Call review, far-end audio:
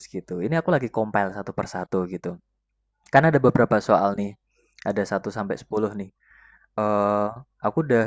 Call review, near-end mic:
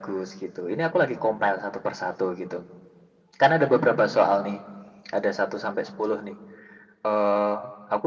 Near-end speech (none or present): none